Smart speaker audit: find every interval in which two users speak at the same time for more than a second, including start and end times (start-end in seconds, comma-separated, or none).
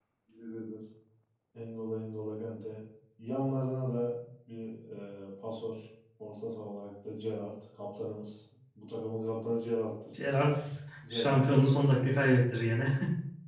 none